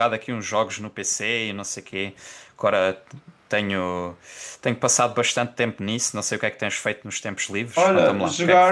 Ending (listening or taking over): taking over